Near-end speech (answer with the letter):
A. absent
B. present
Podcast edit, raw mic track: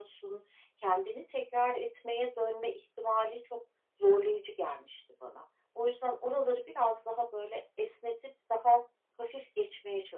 A